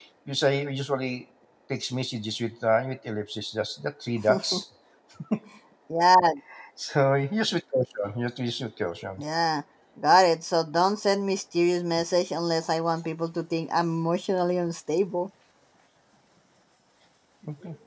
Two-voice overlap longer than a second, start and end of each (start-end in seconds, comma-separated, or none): none